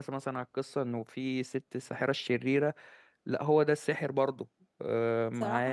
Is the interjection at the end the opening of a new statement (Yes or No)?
Yes